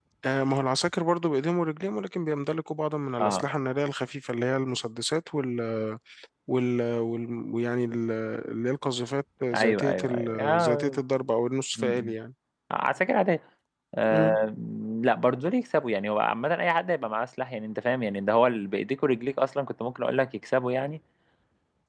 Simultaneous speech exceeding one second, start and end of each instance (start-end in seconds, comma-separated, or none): 9.5-11.0